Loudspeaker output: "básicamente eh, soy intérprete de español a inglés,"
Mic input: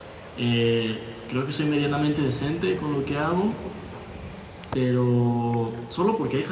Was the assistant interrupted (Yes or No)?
Yes